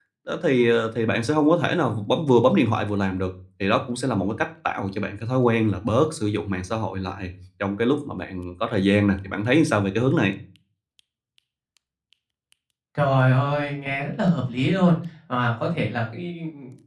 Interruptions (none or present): none